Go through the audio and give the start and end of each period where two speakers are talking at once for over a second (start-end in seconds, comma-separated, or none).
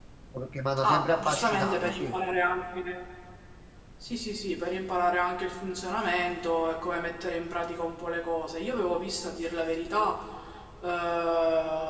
0.8-2.1